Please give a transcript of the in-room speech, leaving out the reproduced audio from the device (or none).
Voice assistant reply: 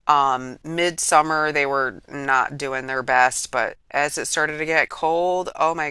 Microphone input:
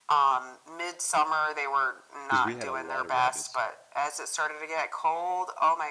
because we had a lot of rabbits.